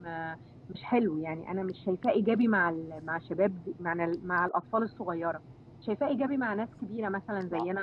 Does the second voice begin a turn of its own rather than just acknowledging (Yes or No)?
No